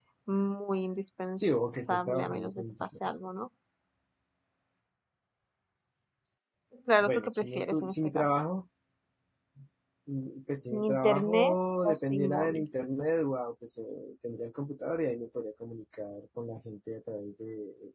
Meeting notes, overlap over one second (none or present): present